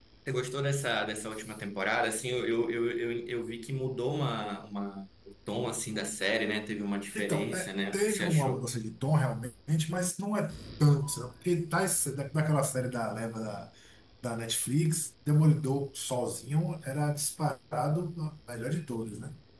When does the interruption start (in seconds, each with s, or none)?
7.2 s